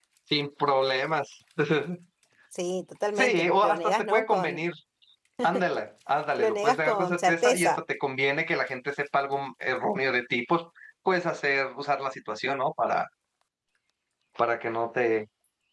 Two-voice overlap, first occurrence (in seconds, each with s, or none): 3.2 s